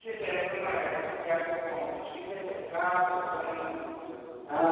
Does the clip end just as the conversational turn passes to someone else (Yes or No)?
Yes